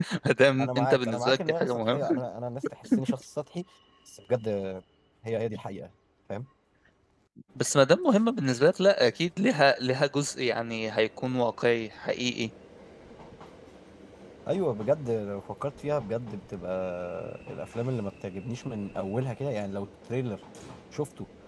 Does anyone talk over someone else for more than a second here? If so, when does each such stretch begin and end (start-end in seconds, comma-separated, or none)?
0.6-2.2